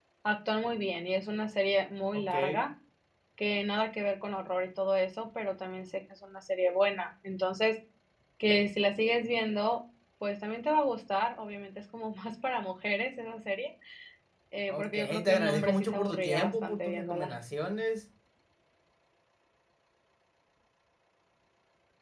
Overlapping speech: Yes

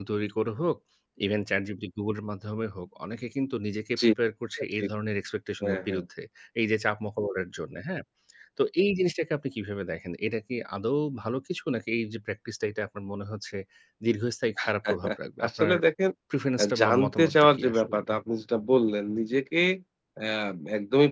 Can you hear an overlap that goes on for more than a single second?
Yes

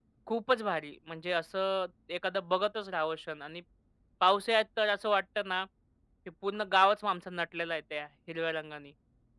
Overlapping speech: No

